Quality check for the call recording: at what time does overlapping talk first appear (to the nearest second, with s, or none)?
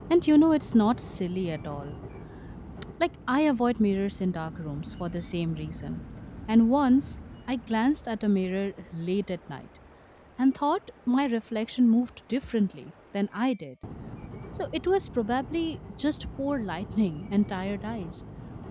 none